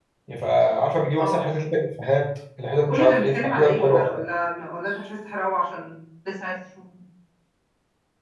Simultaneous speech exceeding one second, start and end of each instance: 2.9-4.2

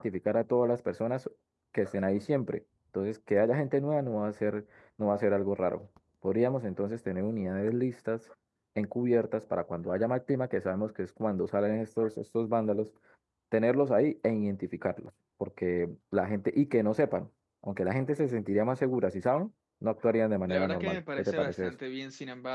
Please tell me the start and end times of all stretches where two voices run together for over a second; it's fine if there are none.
20.5-21.7

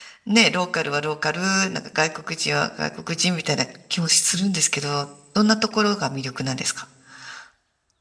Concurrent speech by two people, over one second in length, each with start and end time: none

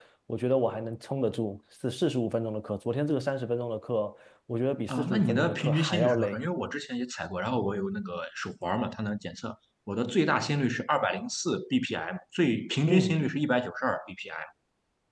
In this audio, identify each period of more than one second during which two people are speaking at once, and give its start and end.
4.9-6.4

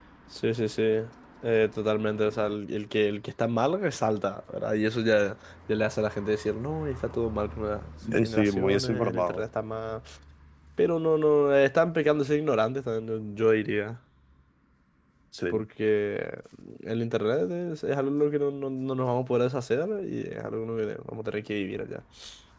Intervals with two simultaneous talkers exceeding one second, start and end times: 8.2-9.4

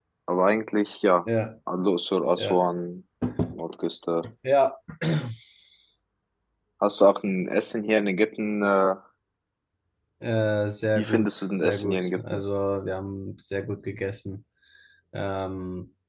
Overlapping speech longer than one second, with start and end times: 10.9-12.4

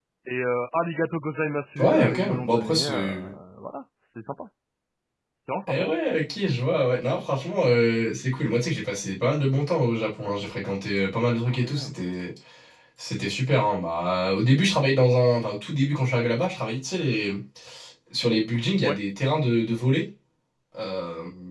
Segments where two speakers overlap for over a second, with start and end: 1.8-3.3

